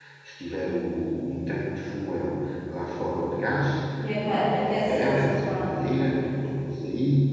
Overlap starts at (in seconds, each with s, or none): 4.3 s